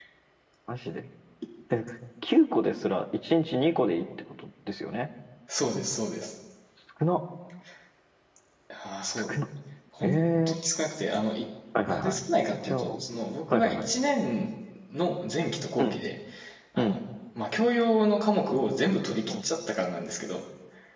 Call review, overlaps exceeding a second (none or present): none